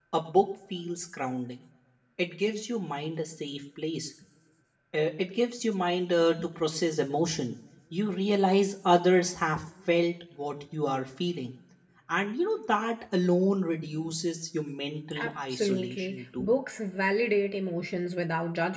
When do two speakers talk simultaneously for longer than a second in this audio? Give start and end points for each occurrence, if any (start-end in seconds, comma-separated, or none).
15.2-16.5